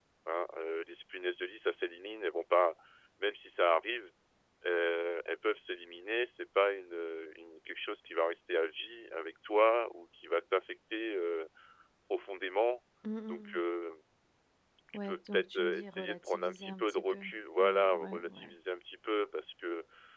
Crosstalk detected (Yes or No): Yes